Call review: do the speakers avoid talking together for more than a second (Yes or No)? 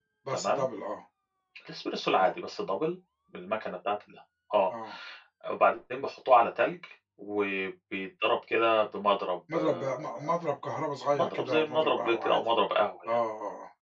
No